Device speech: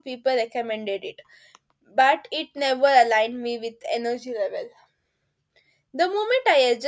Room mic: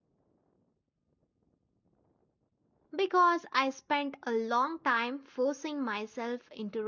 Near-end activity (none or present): present